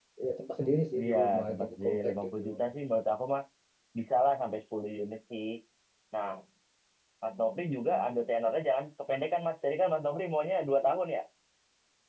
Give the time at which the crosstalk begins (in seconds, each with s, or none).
1.0 s